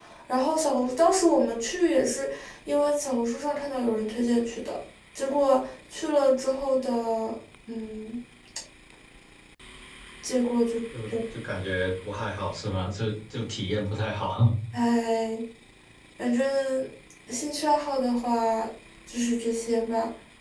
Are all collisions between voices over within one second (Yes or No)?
Yes